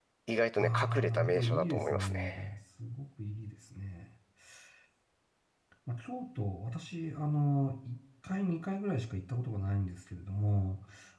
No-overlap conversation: No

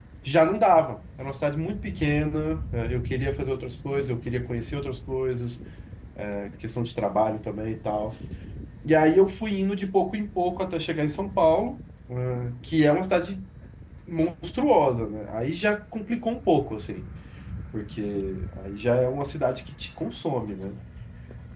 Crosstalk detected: No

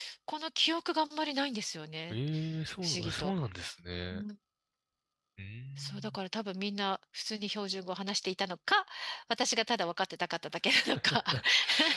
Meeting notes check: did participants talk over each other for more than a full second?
No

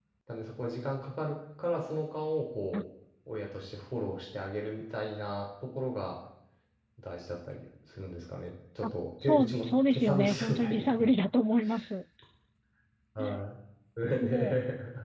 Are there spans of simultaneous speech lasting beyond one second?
Yes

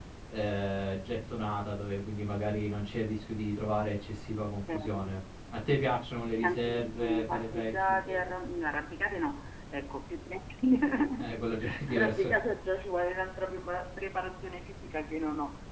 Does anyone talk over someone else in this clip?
Yes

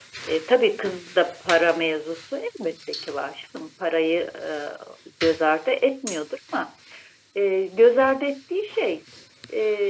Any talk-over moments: No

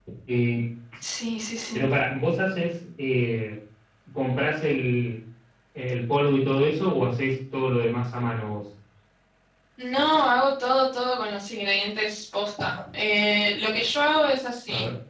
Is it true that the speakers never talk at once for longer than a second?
Yes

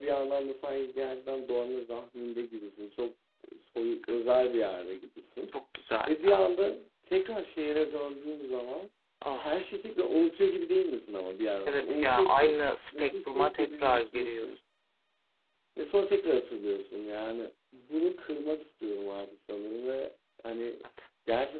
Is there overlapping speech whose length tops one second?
Yes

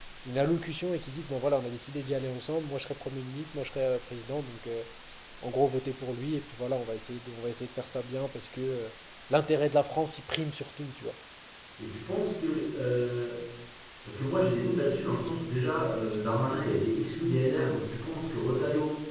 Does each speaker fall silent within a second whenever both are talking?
Yes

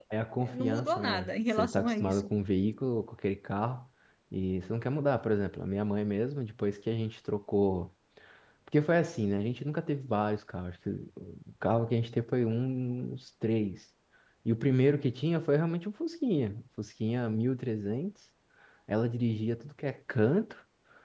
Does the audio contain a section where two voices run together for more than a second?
Yes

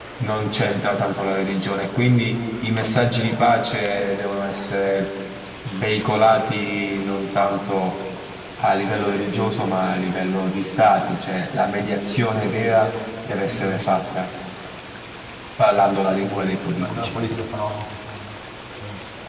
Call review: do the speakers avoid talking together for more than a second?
Yes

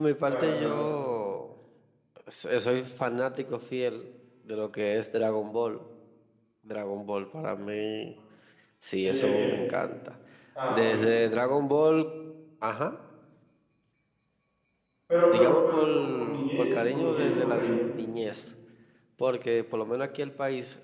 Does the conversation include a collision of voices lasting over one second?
Yes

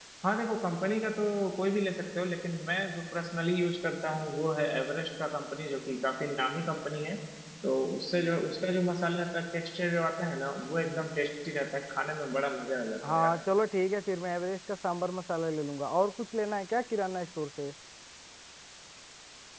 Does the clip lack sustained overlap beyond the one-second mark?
Yes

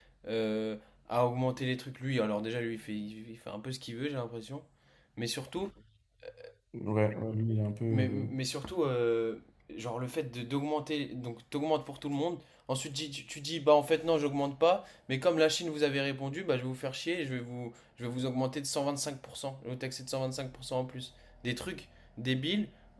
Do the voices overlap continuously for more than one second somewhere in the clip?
No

